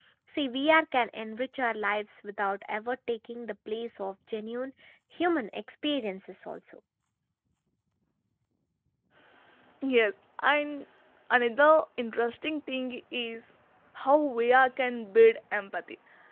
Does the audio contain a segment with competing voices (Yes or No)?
No